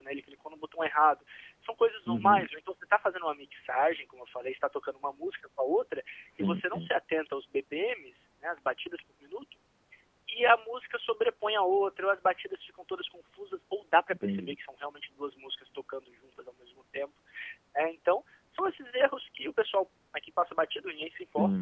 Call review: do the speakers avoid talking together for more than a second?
Yes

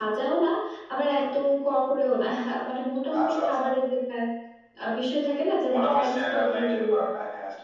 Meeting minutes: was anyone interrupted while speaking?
Yes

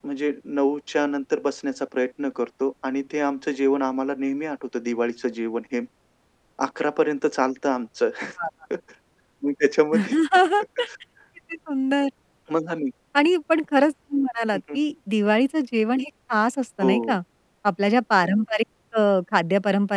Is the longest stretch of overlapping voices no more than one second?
Yes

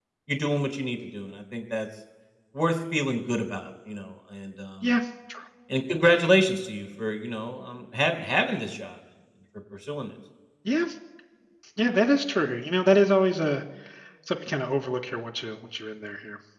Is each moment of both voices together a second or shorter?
Yes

